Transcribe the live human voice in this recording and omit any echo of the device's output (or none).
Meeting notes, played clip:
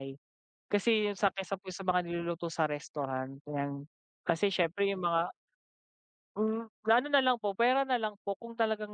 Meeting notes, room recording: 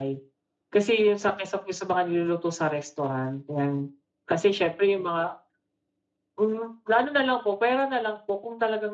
none